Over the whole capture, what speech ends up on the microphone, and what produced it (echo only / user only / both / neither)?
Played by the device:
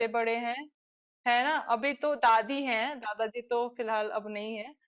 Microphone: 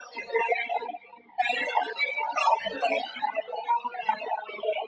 echo only